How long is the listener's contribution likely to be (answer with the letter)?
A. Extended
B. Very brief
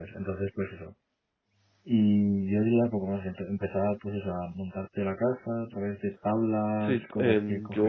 A